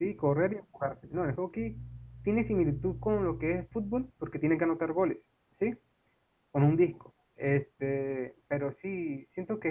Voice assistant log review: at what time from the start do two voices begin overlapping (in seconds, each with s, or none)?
none